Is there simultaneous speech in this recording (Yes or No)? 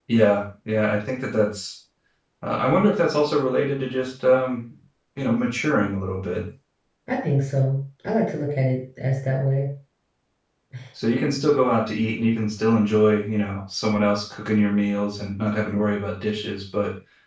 No